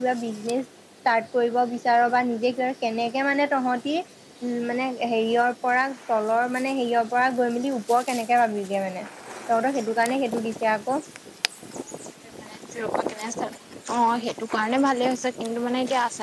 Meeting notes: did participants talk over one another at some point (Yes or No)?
No